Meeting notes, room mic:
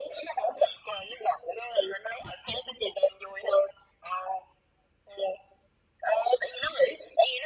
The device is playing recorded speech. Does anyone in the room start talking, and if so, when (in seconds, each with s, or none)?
none